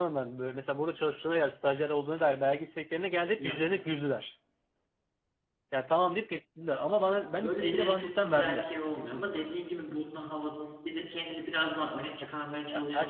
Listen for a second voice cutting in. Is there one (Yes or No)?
Yes